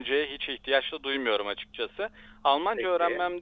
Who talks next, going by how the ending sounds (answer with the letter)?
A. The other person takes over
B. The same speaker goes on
B